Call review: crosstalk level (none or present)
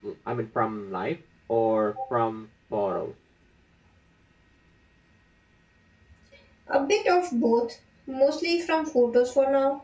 none